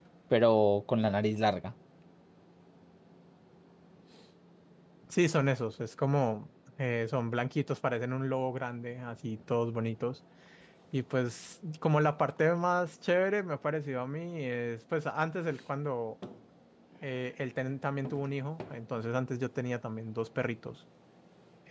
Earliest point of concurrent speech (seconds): none

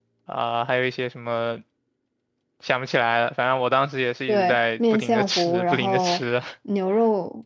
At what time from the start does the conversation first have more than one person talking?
4 s

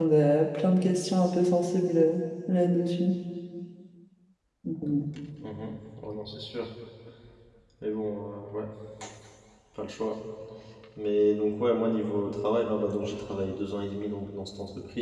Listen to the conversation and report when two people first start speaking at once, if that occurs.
none

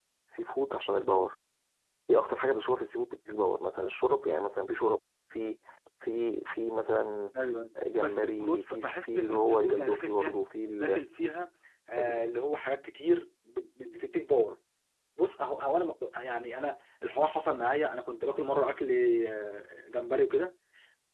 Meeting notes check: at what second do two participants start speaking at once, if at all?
8 s

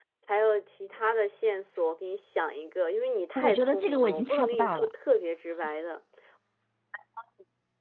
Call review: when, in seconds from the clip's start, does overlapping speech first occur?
3 s

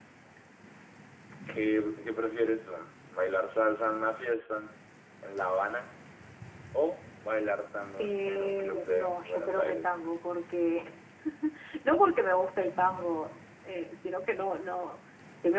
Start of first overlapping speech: 8 s

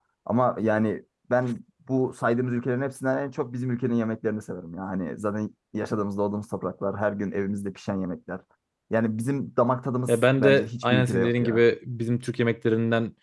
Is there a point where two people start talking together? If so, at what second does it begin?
10 s

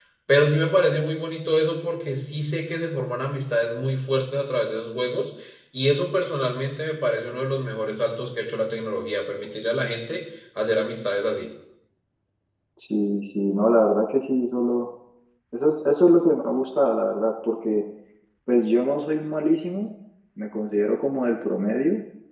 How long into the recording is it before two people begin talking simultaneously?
none

